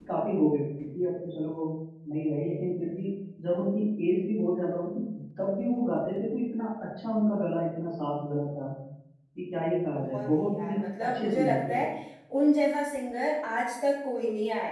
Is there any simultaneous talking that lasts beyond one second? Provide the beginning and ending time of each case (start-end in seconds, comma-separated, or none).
10.0-11.9